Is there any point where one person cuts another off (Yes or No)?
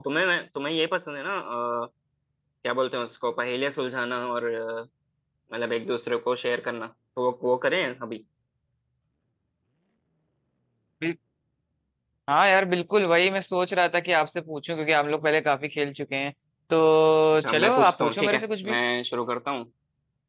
Yes